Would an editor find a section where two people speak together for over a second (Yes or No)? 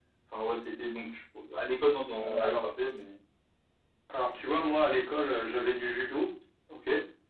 No